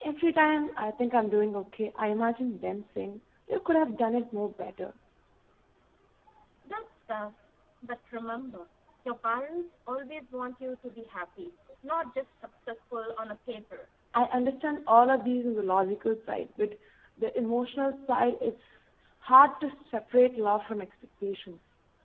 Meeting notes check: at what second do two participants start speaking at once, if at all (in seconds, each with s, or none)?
none